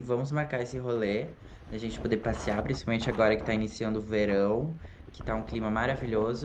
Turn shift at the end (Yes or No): No